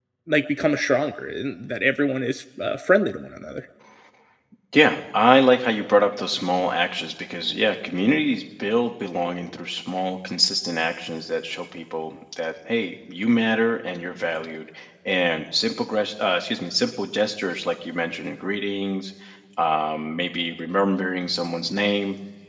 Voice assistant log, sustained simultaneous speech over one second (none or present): none